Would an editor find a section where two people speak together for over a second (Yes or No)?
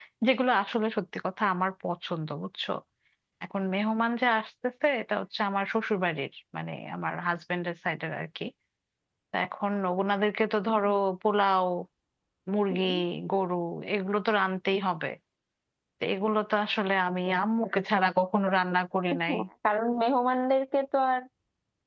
No